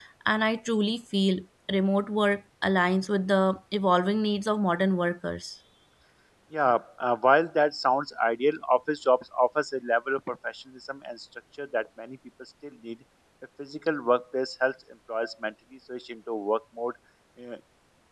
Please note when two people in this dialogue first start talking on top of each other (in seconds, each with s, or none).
none